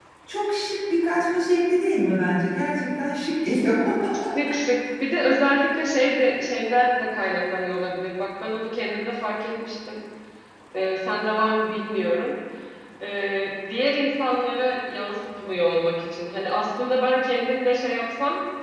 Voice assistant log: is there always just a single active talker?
Yes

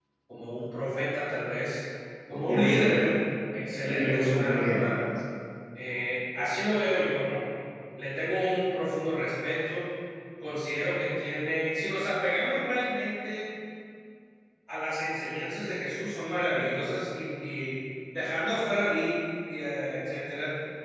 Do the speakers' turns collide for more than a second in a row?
Yes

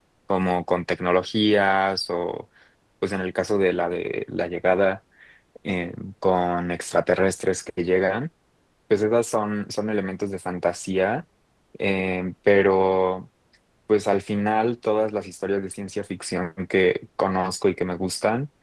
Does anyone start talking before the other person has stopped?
No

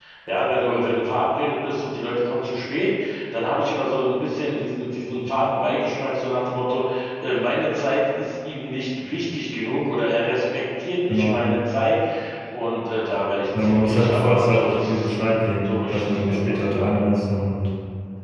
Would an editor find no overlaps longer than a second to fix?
No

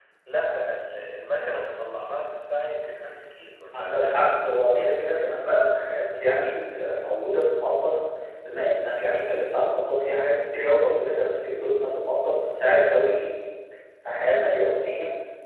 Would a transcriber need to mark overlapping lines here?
Yes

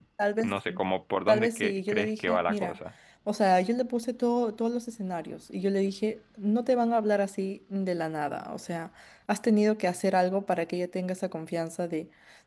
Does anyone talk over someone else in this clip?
Yes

